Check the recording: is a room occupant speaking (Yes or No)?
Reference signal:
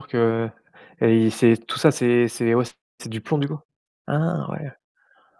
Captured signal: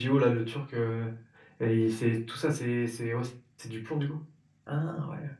No